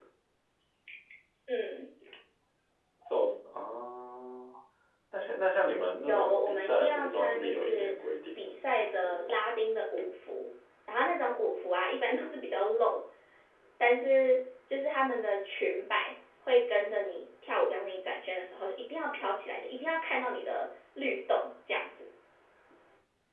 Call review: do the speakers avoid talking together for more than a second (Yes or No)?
No